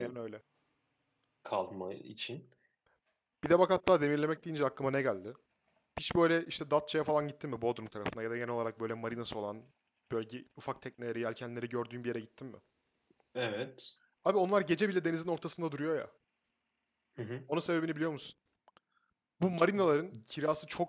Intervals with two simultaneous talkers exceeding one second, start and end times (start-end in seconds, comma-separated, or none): none